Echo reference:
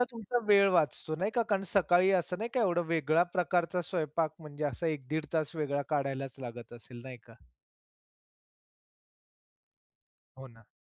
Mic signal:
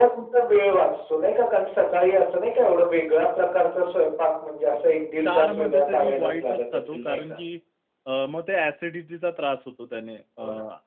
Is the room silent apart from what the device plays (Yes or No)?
No